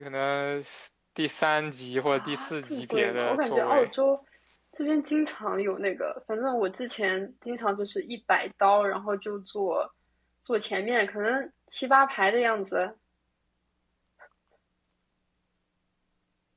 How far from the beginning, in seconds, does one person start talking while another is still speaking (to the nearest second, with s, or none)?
2 s